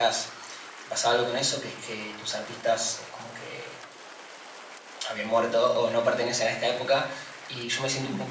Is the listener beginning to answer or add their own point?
No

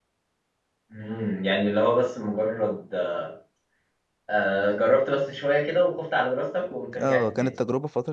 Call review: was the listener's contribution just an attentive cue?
No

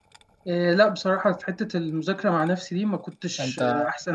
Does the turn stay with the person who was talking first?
Yes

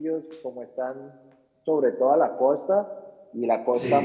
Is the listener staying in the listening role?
Yes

